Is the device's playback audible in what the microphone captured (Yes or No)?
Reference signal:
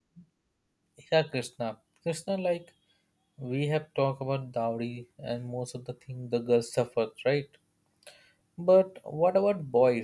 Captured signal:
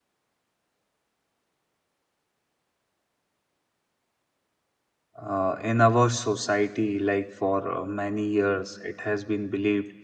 No